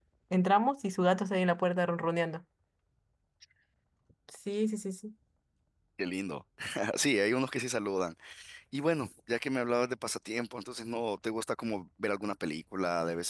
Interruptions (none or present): none